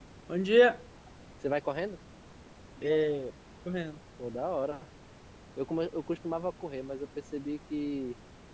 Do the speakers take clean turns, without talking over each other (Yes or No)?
Yes